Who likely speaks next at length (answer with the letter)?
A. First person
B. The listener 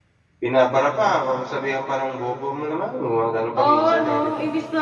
B